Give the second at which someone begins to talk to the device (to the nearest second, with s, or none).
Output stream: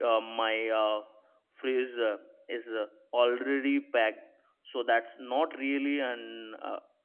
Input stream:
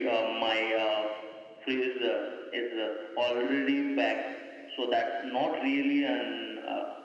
none